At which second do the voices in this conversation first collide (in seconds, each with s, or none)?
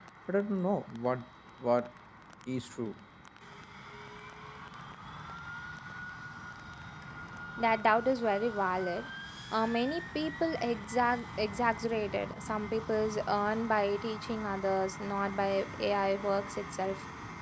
none